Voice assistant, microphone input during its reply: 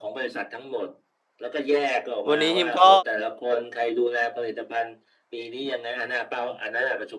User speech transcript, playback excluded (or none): วันนี้ฮิมก็